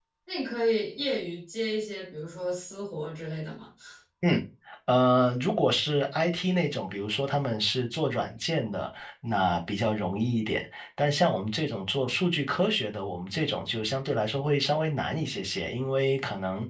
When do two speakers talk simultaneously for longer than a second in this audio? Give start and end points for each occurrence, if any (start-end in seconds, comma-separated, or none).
none